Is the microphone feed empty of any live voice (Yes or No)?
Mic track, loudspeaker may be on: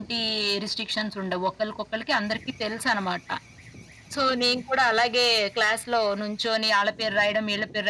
Yes